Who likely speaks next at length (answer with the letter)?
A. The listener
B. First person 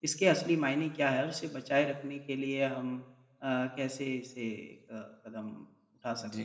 A